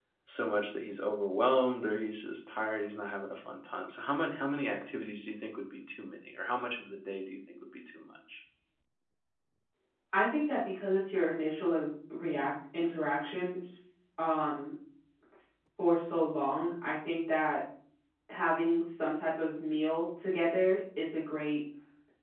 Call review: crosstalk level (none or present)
none